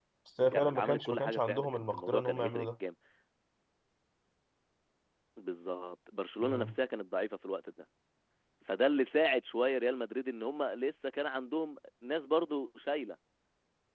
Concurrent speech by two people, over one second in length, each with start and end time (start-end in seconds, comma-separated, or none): 0.5-2.7